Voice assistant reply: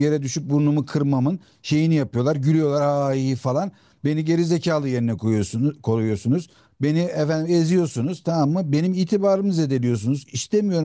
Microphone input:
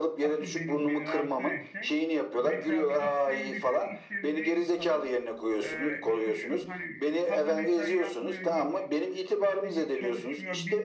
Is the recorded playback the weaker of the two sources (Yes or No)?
No